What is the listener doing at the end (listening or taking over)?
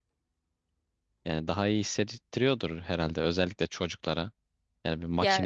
listening